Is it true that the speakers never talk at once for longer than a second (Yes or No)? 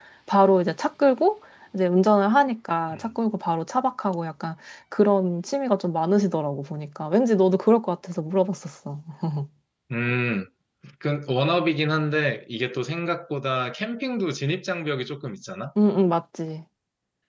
Yes